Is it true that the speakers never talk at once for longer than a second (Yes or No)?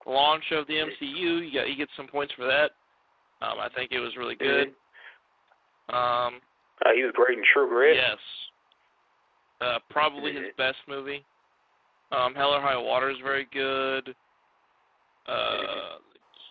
Yes